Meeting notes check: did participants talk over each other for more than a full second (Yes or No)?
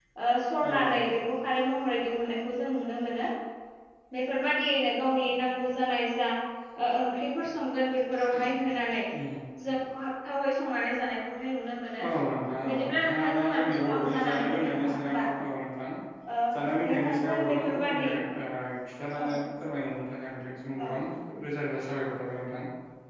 Yes